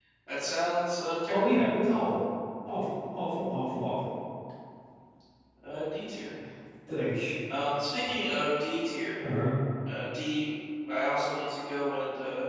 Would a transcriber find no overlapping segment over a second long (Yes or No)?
Yes